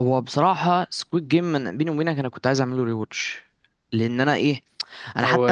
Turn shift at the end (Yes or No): No